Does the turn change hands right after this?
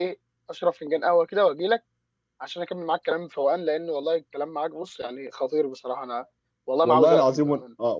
Yes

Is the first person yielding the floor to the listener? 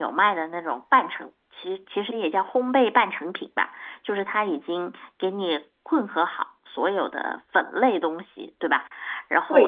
No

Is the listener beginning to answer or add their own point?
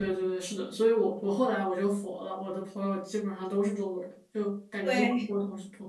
No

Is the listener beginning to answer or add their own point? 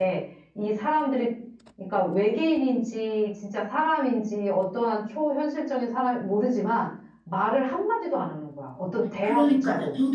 Yes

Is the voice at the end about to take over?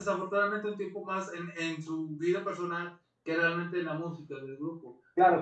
Yes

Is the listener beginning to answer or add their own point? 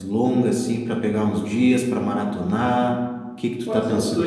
Yes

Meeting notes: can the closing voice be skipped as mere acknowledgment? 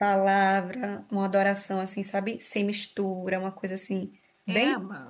No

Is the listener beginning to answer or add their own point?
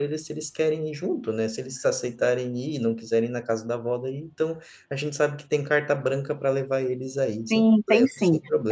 Yes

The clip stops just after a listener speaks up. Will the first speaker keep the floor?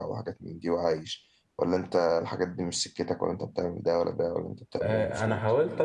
No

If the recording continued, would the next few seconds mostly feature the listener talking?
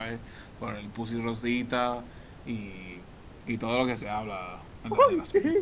Yes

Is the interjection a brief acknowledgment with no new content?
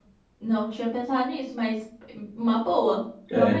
No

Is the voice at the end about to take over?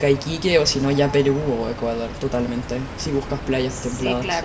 Yes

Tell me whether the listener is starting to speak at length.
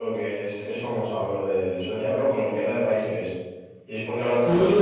Yes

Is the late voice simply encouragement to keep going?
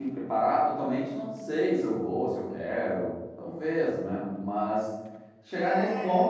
Yes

